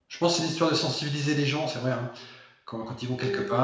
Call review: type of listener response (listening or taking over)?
taking over